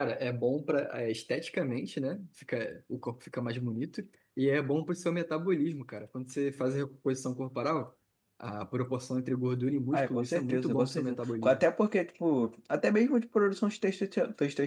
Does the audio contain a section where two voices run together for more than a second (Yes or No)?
Yes